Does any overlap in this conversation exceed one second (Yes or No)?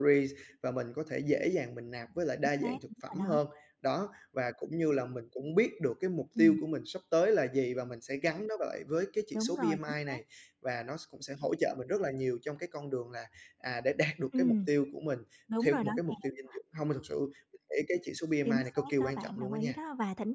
Yes